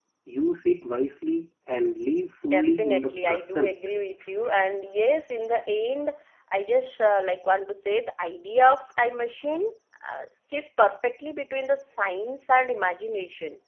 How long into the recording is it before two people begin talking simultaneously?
2.4 s

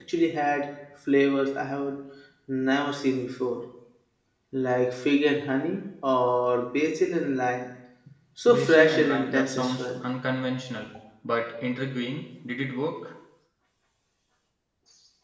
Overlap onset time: 8.5 s

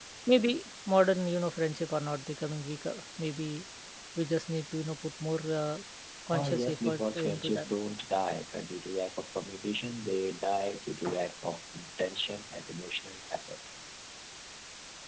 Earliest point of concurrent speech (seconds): 6.4 s

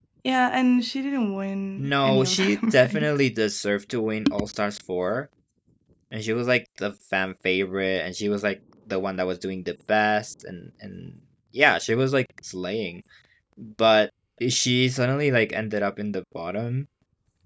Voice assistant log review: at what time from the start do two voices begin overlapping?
1.8 s

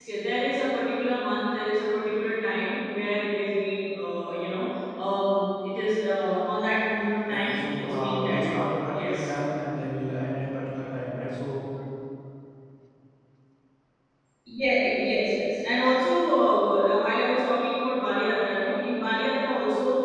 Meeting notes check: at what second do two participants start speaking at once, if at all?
7.3 s

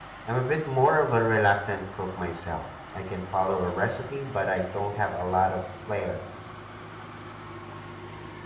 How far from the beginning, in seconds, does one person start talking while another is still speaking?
none

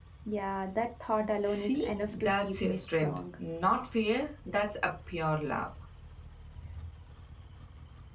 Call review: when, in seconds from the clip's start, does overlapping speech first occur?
1.2 s

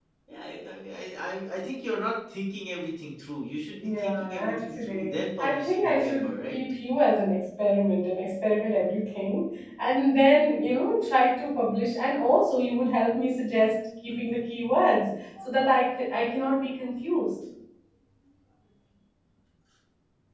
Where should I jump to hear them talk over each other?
3.8 s

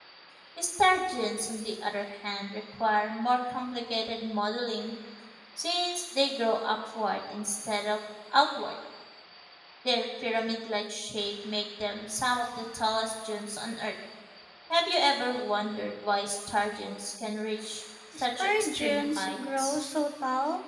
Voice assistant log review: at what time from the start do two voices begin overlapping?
18.1 s

